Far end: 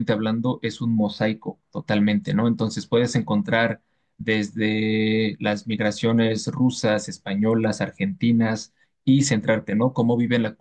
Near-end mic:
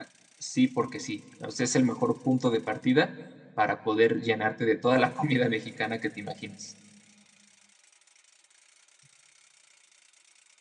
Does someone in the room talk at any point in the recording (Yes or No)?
Yes